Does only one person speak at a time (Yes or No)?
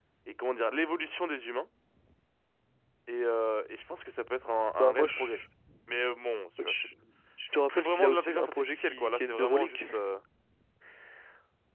No